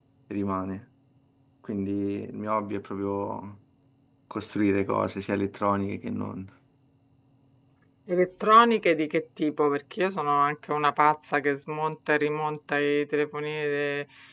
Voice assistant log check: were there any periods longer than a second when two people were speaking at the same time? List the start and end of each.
none

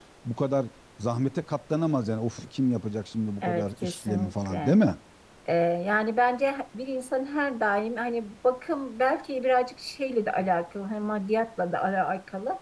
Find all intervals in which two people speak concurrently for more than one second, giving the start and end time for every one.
3.4-4.8

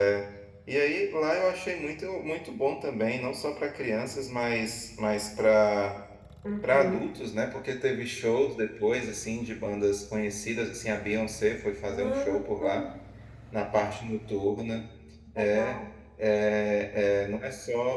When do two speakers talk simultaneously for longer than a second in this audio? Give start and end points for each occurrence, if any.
none

